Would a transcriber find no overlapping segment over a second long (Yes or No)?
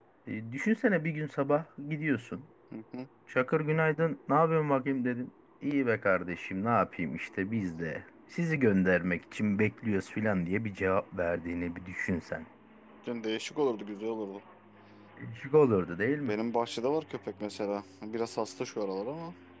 Yes